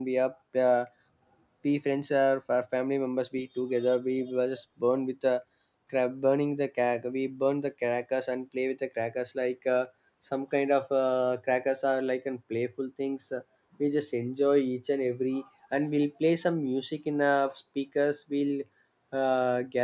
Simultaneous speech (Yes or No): No